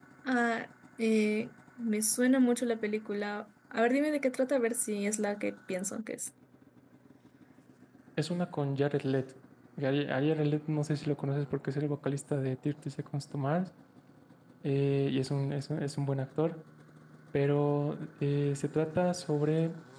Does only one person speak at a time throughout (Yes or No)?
Yes